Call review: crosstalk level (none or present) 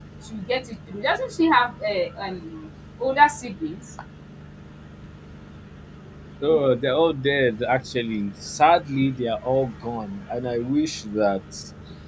none